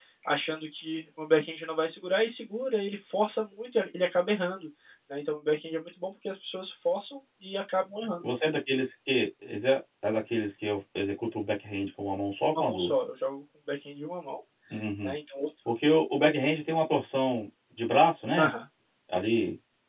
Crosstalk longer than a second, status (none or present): none